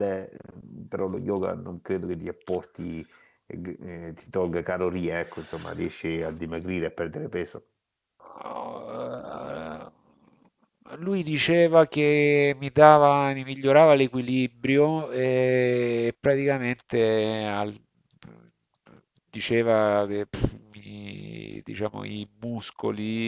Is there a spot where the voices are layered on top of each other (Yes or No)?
No